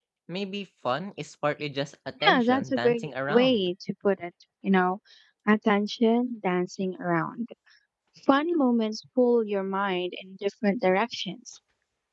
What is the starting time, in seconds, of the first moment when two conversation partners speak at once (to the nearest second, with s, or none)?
2 s